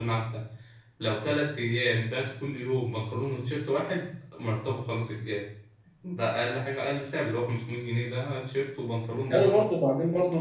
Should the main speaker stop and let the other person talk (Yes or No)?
Yes